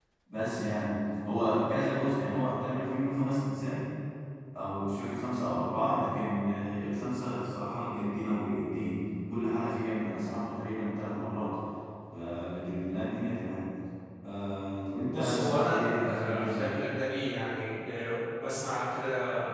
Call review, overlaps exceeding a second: present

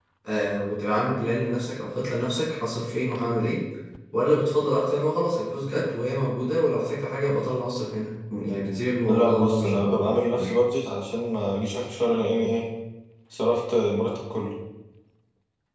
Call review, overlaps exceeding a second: present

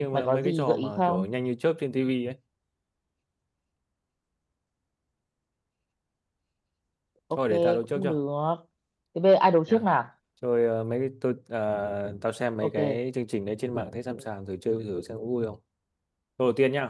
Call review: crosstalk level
present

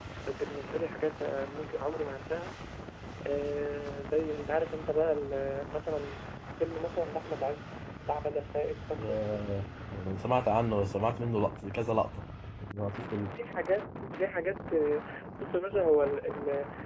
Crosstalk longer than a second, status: none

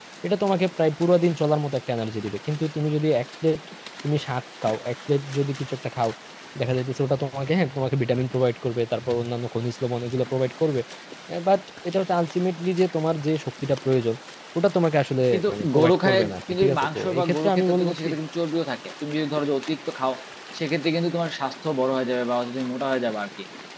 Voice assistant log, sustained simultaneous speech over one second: present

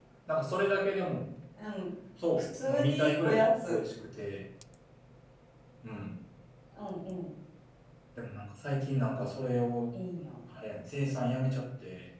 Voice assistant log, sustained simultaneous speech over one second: present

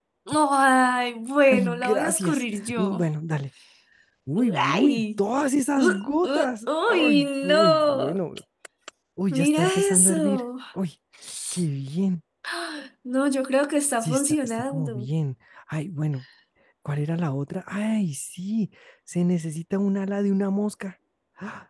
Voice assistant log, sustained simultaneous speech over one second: present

